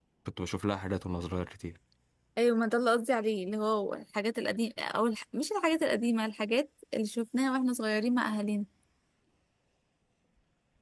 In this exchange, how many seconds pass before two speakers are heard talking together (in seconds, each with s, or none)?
none